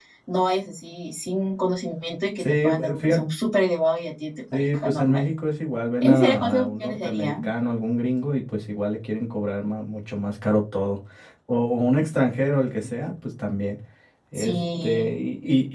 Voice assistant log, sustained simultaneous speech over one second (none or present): present